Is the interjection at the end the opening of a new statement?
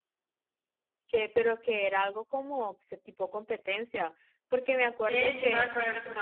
Yes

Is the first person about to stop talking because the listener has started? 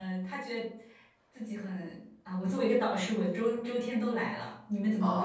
Yes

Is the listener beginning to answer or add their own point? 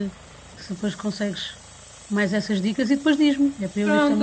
Yes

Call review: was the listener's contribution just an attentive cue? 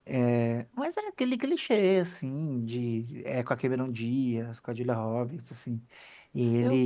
Yes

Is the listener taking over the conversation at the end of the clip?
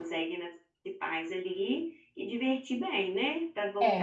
Yes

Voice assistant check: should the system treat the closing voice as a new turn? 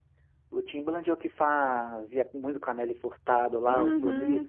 Yes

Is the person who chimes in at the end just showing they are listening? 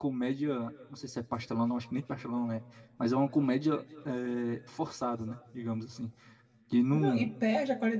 No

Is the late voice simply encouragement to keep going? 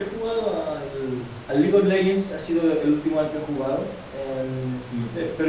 Yes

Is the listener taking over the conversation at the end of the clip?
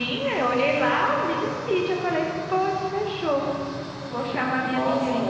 No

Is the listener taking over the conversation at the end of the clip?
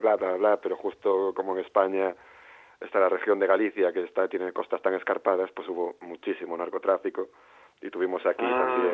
No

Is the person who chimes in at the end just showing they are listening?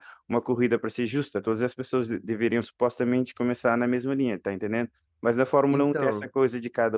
Yes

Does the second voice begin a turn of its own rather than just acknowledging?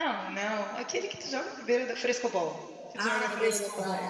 Yes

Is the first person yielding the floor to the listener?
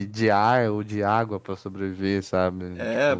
Yes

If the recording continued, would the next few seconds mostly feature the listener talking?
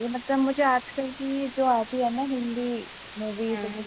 No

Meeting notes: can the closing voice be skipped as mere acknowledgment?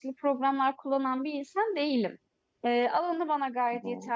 Yes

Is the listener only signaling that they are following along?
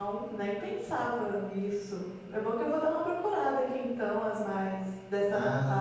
No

